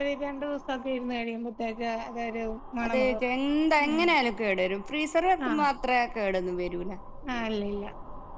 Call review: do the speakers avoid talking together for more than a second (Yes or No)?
Yes